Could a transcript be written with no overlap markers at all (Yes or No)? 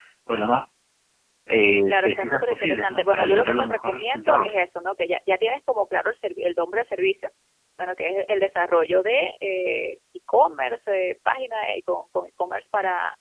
No